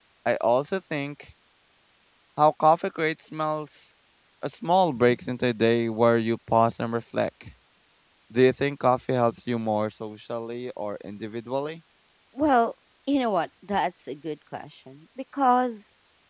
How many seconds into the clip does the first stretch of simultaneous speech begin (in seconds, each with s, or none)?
none